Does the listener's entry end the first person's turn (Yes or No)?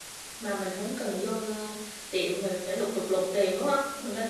Yes